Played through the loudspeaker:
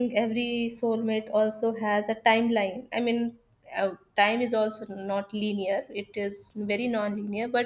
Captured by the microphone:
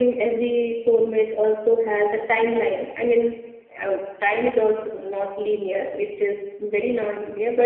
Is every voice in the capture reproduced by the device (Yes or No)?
Yes